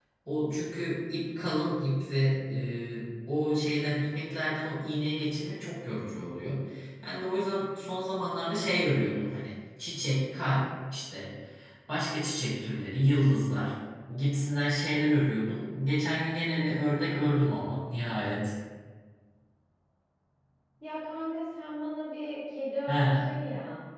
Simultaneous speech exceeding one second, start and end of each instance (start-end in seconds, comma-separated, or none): none